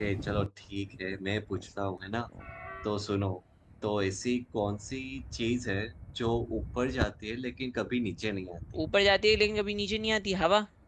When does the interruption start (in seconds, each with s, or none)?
none